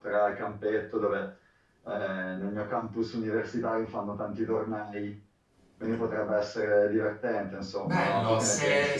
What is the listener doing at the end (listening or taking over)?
taking over